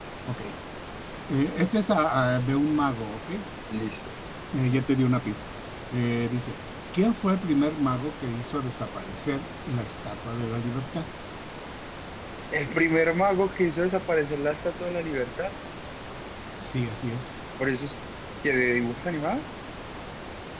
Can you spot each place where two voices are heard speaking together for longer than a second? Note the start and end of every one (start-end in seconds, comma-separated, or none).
none